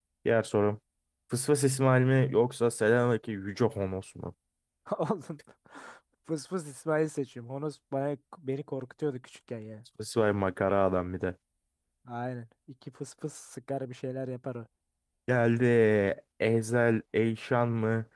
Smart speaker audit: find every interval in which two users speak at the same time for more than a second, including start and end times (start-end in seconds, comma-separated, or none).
none